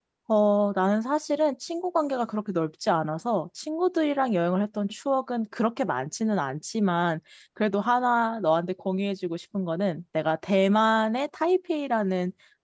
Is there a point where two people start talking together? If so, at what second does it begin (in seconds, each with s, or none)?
none